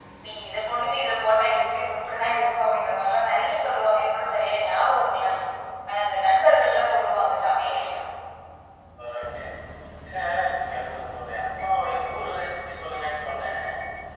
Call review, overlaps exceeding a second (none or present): none